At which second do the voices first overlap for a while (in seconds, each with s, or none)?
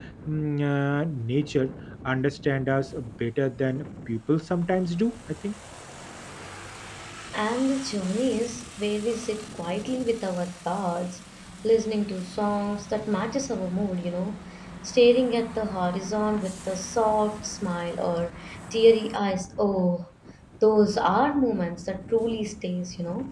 none